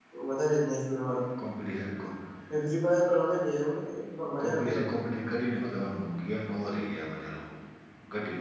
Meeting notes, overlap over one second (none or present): none